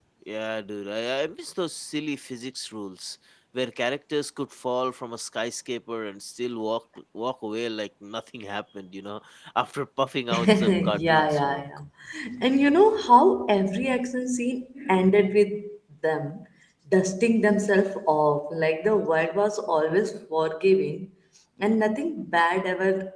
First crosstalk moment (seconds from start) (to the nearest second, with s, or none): 10 s